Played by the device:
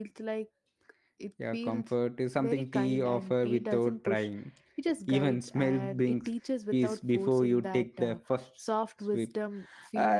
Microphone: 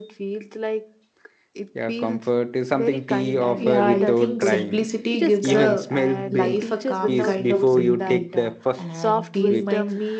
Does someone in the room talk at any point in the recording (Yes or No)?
Yes